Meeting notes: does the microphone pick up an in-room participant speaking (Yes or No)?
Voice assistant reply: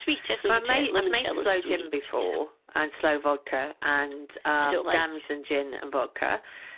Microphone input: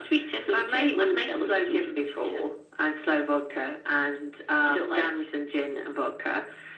No